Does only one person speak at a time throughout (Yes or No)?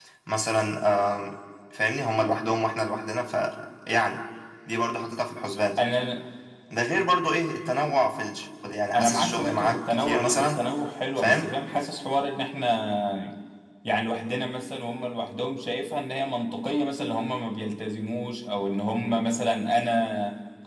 No